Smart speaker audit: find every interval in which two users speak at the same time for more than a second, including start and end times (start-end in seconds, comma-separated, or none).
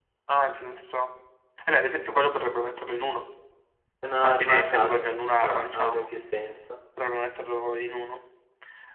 4.2-6.1